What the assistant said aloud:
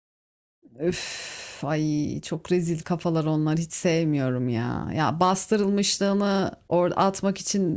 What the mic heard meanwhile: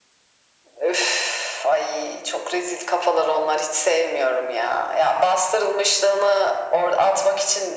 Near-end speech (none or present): none